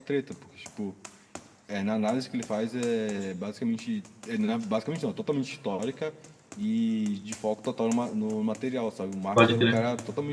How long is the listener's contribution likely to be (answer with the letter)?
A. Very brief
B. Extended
A